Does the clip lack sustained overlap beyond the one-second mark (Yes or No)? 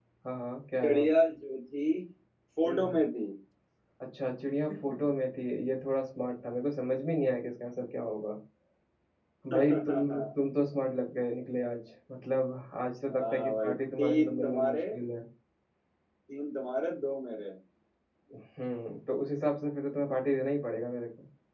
No